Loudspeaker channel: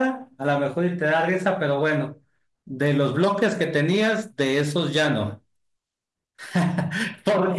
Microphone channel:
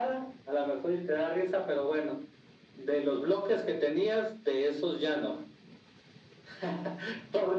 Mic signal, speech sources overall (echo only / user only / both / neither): echo only